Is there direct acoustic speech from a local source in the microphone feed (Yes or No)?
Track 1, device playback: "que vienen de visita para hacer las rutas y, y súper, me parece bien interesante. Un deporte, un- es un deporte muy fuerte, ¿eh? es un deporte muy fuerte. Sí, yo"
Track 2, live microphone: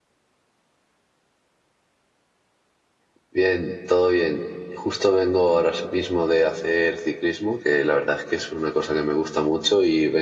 Yes